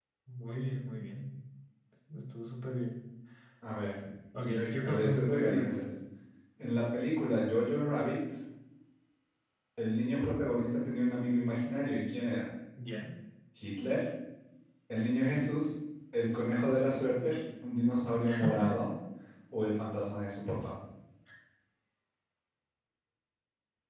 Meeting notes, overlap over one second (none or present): present